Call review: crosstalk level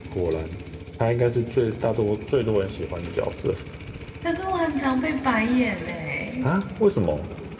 none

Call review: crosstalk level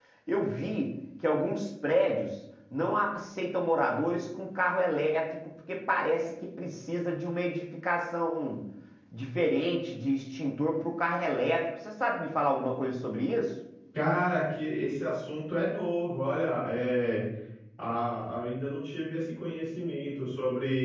none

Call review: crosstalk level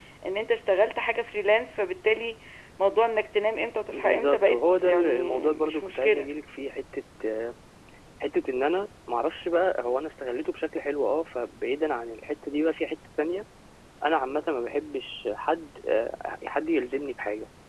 present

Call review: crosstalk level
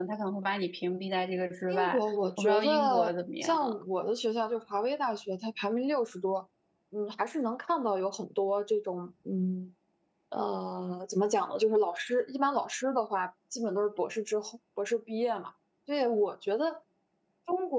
present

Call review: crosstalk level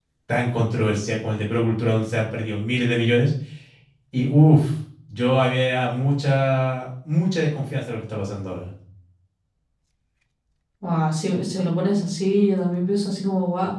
none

